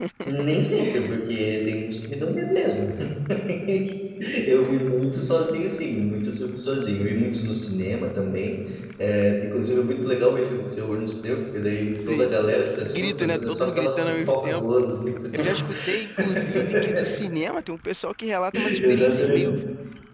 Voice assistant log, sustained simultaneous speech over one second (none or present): present